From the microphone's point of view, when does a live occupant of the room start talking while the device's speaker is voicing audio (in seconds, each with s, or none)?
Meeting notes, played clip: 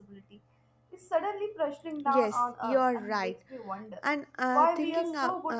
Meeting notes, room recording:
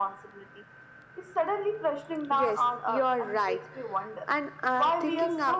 none